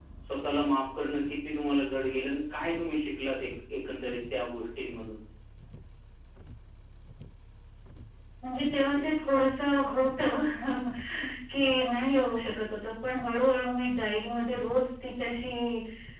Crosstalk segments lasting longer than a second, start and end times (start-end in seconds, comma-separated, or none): none